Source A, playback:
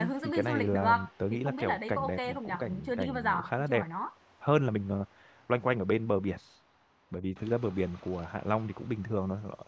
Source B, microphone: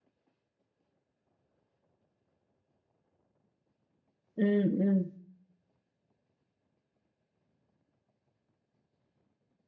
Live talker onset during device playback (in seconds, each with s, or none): 4.4 s